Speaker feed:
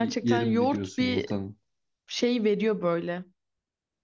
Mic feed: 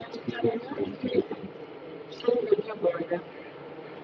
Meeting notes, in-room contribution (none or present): none